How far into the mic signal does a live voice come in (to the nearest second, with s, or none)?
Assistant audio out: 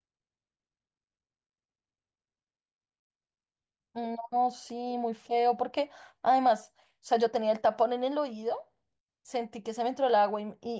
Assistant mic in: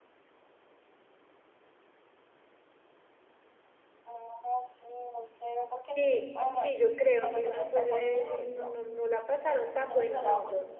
6 s